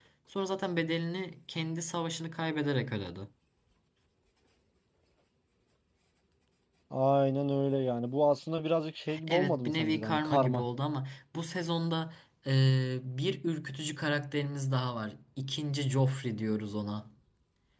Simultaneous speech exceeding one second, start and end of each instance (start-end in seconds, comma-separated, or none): 9.3-10.6